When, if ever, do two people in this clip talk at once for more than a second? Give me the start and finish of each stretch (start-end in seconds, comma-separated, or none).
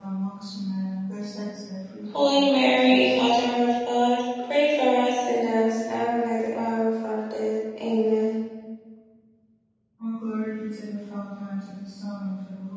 2.1-3.4